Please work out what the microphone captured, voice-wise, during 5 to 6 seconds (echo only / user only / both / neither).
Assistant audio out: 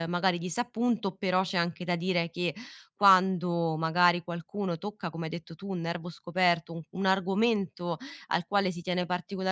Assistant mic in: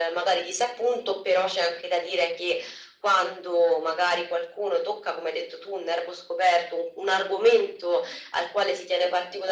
echo only